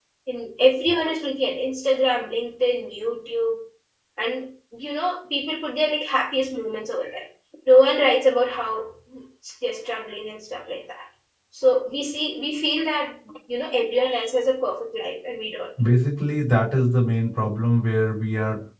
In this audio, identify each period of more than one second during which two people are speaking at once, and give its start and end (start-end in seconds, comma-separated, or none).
none